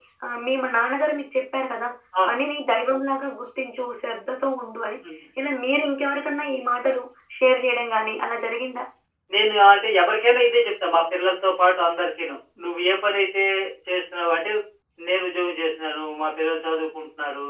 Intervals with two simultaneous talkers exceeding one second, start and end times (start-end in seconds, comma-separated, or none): none